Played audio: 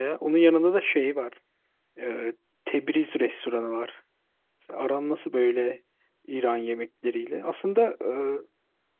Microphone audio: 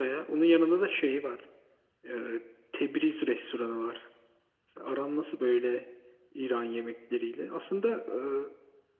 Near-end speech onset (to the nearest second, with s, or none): none